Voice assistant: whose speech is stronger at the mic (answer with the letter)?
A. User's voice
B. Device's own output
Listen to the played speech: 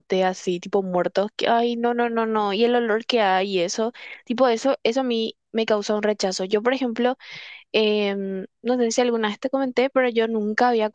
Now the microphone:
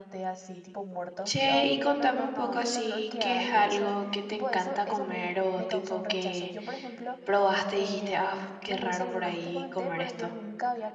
A